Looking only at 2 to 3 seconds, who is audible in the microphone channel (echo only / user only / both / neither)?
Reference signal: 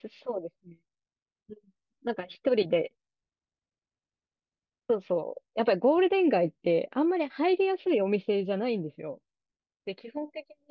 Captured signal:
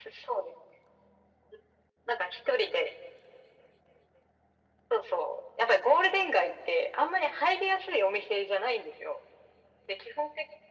echo only